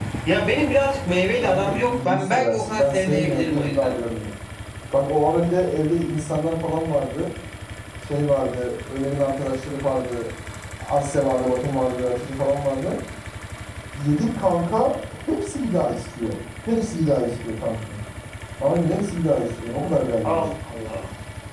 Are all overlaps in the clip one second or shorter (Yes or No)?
No